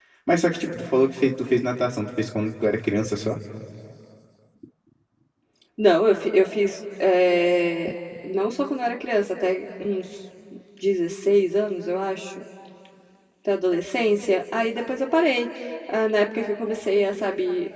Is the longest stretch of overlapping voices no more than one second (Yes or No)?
Yes